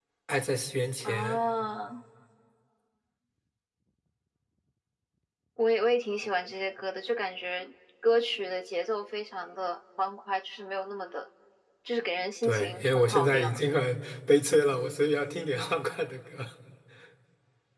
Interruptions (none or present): present